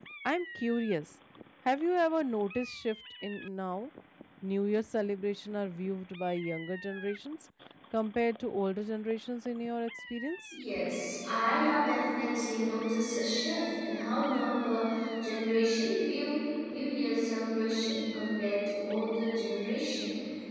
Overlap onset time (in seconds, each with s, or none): none